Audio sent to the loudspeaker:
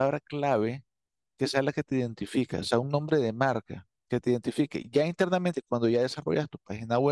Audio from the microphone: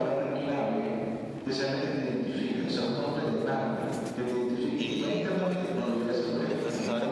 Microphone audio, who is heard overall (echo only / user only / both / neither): both